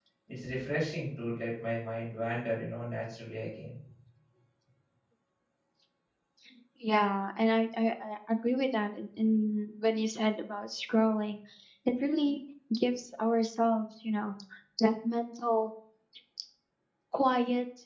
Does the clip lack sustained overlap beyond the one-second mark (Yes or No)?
Yes